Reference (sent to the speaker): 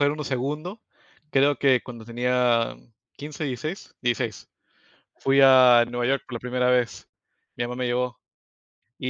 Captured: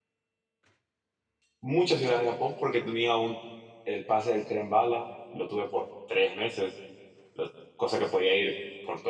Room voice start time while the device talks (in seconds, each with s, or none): 1.6 s